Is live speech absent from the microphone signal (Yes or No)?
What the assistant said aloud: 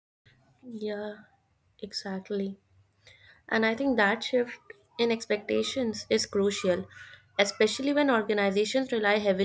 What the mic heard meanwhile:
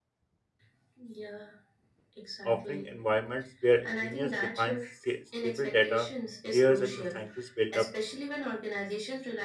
No